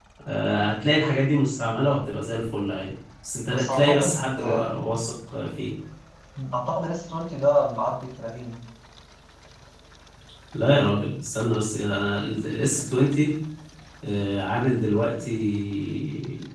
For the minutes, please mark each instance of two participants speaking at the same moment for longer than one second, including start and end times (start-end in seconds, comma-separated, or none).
3.5-4.8